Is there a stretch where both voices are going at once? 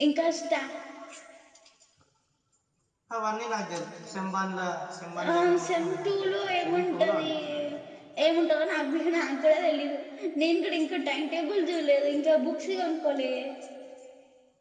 Yes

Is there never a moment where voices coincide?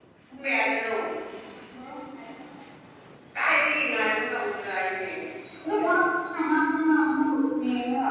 Yes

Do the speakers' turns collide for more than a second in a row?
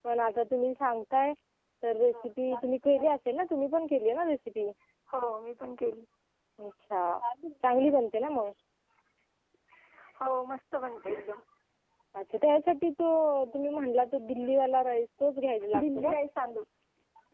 No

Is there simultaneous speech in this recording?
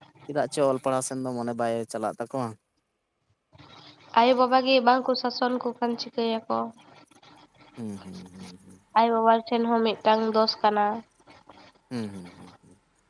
No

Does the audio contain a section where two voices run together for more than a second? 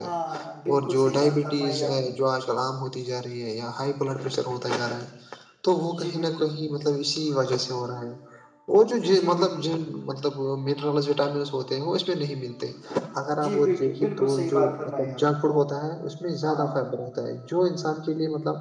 Yes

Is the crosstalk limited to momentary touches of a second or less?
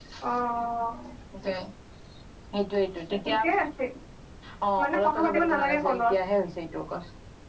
No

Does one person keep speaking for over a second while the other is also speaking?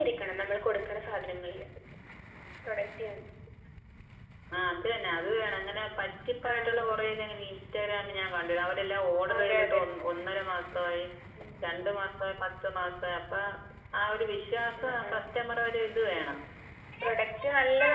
No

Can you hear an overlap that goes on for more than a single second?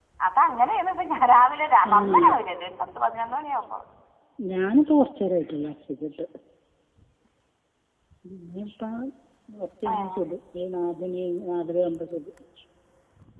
No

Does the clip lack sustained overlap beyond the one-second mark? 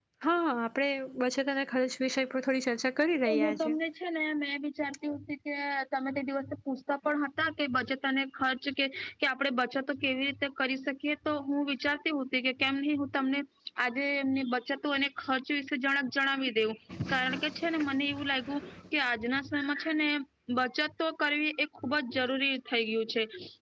Yes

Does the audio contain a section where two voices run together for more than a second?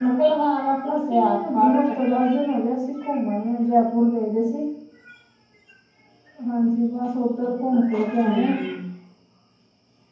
Yes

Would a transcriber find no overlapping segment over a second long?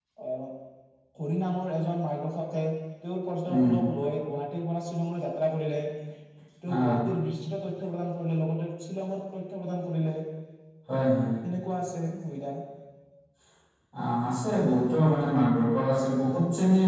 Yes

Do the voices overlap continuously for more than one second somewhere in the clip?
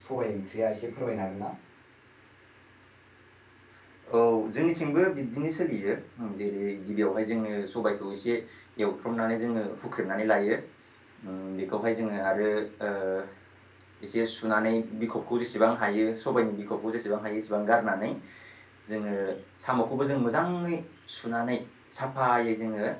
No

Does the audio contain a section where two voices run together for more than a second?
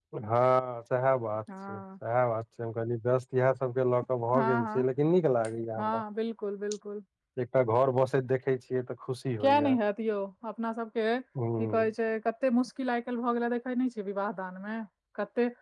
No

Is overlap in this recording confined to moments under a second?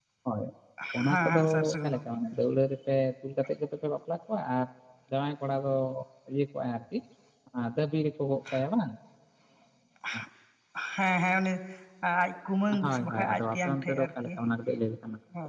No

